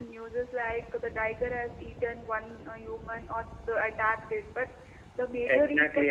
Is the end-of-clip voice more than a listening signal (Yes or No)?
Yes